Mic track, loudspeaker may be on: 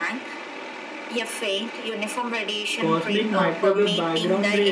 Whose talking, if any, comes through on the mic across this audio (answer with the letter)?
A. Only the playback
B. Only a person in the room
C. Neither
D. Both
D